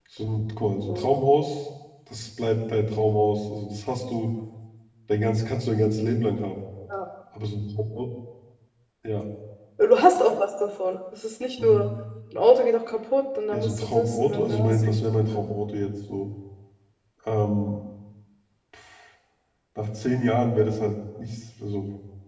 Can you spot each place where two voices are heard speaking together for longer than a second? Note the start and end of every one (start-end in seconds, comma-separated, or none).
13.5-15.2